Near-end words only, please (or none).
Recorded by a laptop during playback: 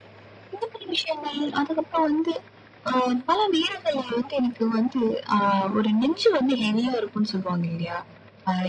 none